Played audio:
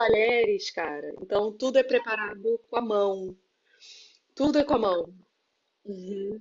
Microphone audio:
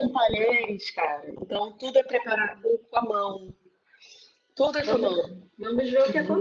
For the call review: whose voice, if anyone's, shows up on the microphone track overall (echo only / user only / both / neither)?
both